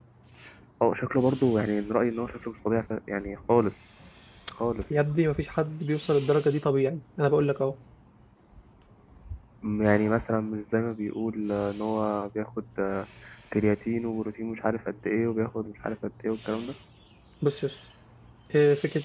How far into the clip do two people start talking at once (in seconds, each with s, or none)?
none